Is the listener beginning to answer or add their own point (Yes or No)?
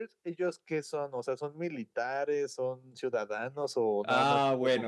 Yes